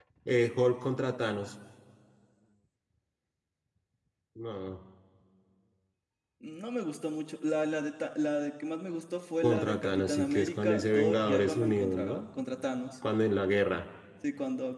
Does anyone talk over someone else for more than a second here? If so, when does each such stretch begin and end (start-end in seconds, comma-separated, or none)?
9.4-12.2